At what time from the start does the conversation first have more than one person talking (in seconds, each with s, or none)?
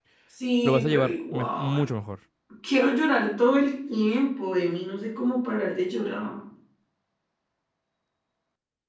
0.6 s